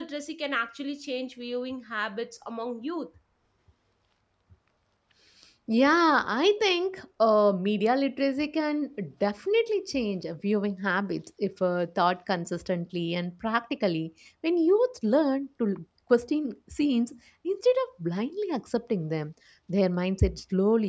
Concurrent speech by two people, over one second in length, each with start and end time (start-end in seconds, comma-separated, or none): none